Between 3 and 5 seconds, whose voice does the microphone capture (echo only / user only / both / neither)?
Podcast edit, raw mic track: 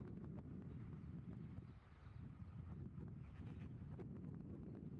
neither